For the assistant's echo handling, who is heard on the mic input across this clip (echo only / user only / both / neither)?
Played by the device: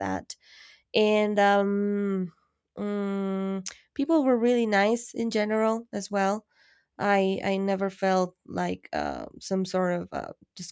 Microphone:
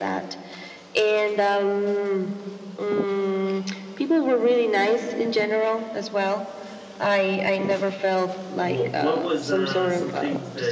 both